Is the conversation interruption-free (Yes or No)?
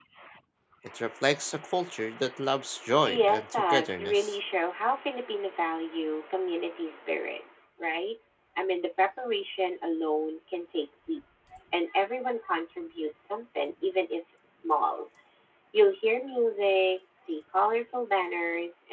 No